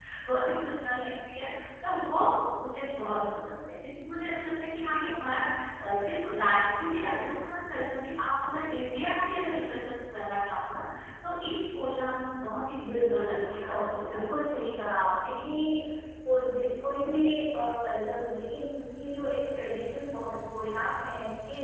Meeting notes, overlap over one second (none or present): present